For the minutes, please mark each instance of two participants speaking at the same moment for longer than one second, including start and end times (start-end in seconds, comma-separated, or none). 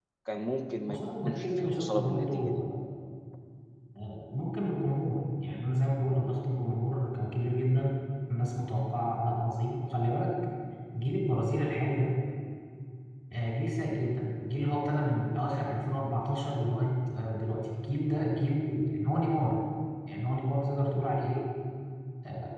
0.9-2.6